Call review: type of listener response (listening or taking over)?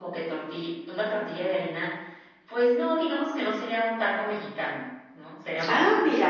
listening